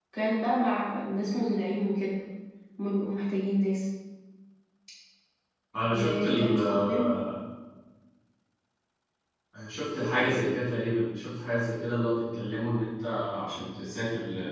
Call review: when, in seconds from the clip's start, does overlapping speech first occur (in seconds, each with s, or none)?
5.9 s